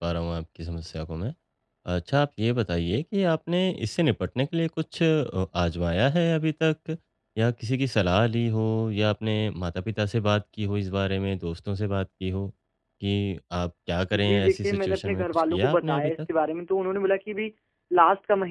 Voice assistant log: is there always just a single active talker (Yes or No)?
No